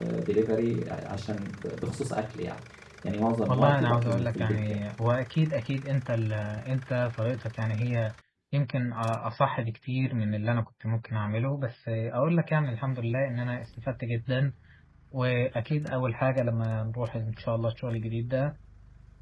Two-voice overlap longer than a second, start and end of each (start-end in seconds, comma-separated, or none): 3.5-4.8